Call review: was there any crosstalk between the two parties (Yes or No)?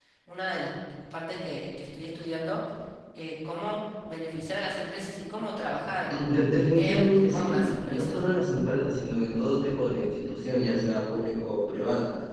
Yes